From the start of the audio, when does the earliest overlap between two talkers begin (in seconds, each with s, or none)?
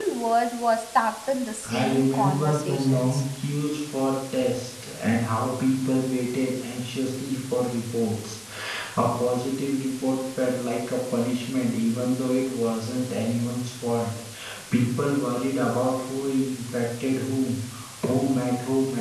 1.6 s